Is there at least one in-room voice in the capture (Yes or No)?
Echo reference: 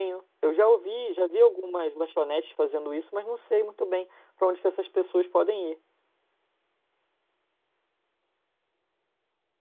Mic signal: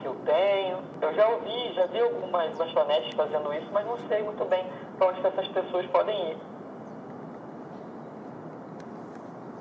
No